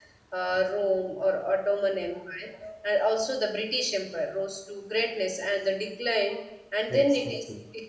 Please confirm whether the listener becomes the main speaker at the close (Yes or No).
No